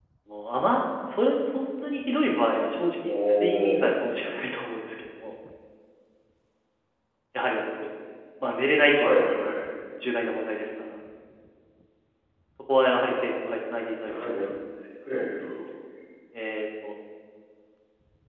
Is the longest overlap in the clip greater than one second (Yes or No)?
Yes